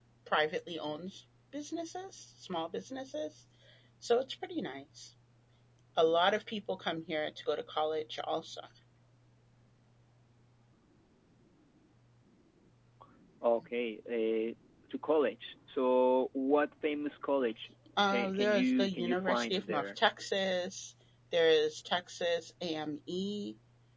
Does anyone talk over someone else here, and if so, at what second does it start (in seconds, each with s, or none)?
18.1 s